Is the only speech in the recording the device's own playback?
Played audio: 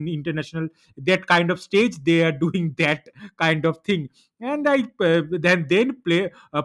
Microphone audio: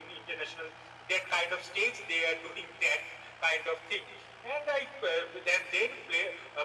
Yes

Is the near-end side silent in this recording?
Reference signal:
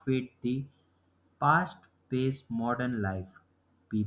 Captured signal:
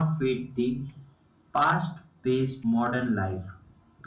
Yes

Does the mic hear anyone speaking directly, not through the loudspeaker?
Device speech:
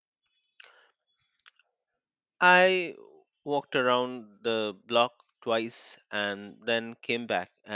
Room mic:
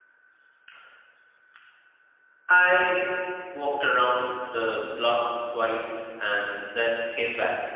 No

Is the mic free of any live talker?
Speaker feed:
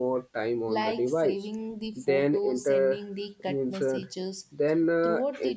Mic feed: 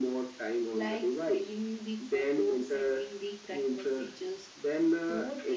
Yes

